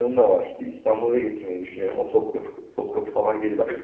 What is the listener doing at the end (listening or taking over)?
taking over